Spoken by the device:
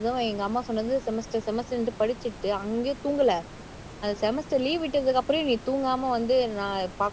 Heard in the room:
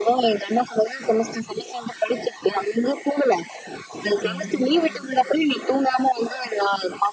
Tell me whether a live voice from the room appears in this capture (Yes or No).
Yes